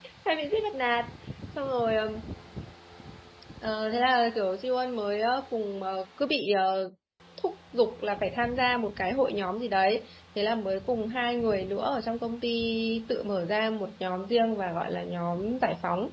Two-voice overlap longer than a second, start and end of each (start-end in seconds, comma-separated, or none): none